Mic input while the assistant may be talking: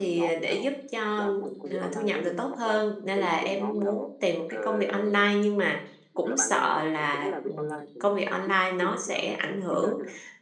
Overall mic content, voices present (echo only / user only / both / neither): both